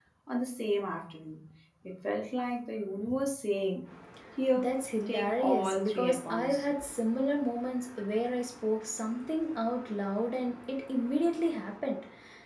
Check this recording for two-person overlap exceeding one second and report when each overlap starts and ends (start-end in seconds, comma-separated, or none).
5.1-6.6